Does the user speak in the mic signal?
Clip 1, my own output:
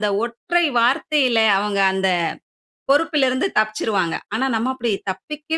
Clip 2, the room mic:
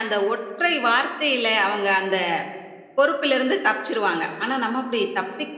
No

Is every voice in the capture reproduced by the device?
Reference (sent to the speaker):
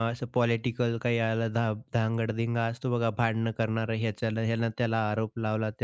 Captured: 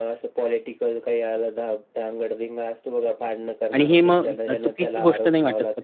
No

